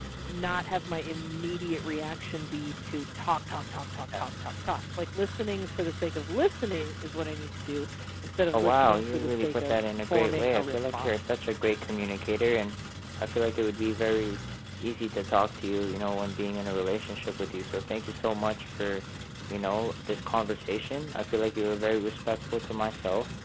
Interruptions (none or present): present